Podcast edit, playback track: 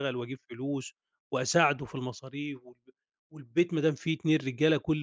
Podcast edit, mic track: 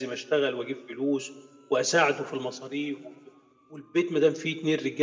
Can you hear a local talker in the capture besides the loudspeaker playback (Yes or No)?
No